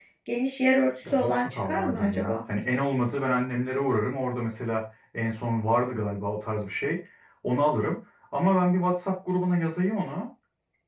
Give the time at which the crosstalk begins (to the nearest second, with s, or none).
1 s